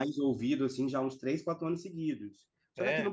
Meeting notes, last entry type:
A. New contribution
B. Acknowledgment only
B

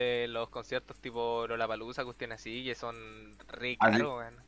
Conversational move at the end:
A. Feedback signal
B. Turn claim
B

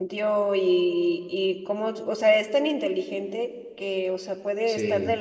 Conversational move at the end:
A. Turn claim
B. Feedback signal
B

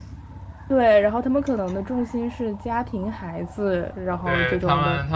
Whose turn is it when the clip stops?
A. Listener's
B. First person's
A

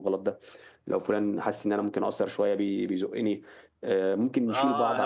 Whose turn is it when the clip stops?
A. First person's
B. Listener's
B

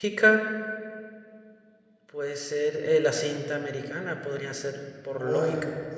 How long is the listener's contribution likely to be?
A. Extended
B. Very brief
A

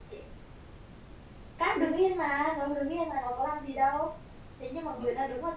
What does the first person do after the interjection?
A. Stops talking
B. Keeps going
B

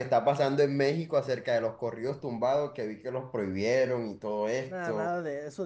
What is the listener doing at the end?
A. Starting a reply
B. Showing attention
A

